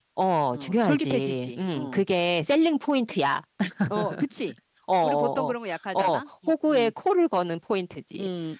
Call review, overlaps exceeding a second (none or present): present